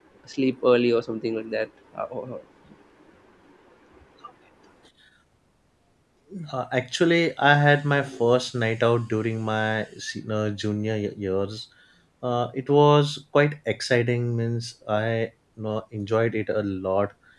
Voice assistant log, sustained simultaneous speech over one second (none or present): none